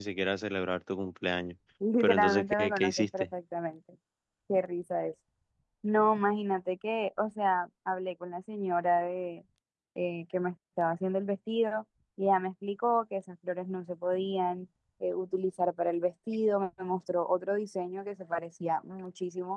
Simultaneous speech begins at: 2.0 s

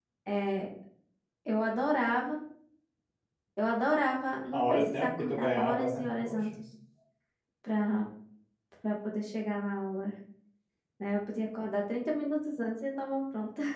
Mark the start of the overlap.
4.5 s

